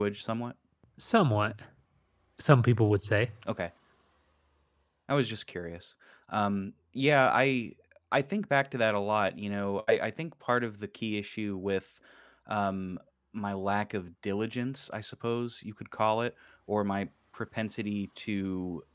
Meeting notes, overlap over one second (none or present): none